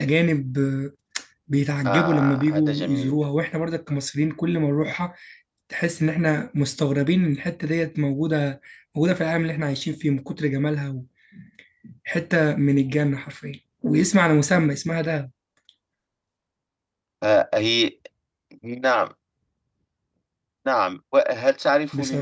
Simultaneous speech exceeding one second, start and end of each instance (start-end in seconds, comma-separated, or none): 1.9-3.2